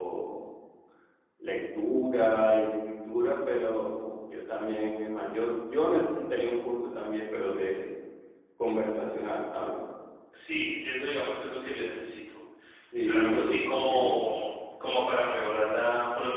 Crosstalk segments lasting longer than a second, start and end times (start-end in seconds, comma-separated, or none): 13.0-14.3